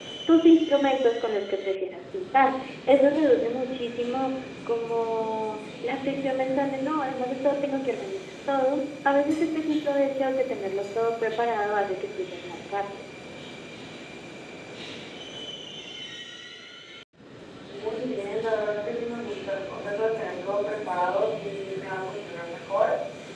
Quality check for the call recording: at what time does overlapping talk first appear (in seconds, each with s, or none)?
none